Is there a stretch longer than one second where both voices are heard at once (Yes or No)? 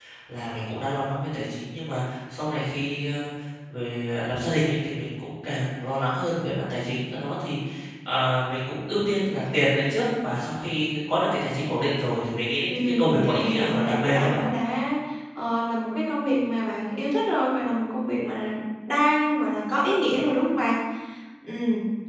Yes